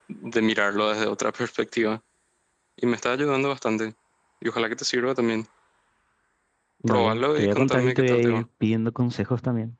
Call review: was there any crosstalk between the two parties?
Yes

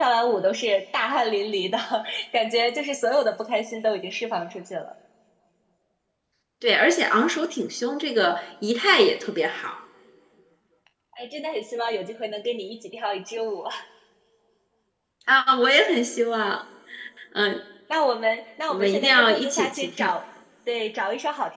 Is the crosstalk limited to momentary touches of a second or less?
No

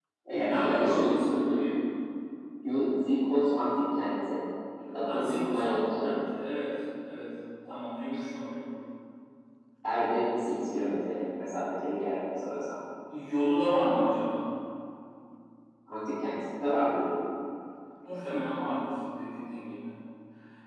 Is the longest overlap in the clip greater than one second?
Yes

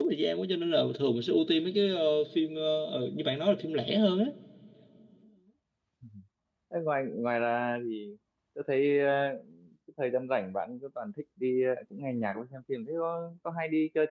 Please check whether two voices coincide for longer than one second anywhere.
No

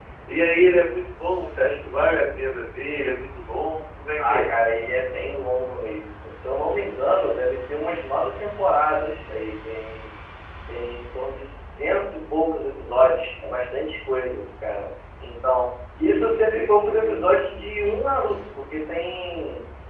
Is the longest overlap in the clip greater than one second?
Yes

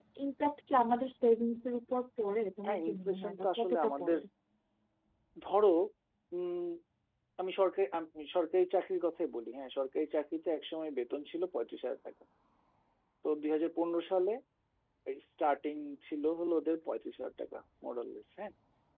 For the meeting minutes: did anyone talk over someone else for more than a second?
Yes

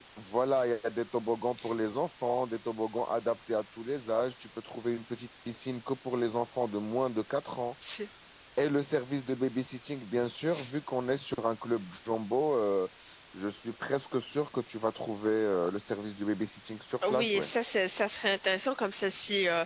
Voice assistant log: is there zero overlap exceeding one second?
Yes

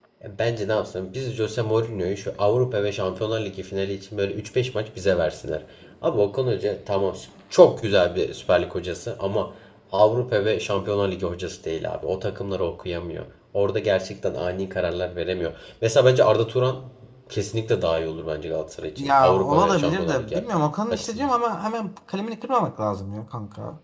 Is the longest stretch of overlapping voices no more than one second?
No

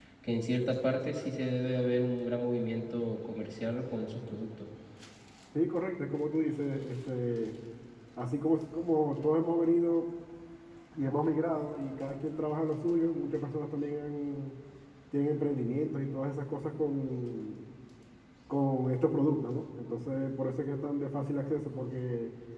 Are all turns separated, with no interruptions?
Yes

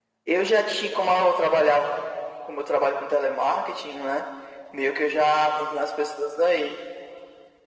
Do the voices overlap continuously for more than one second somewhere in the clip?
No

